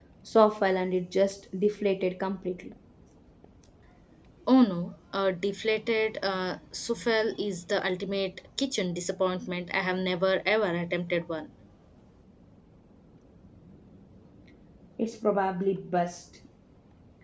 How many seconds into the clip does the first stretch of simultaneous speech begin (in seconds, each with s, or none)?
none